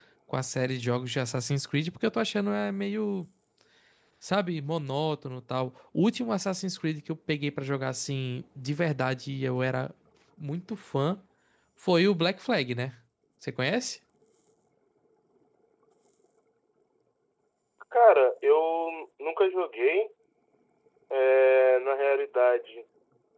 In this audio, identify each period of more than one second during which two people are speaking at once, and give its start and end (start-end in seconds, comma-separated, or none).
none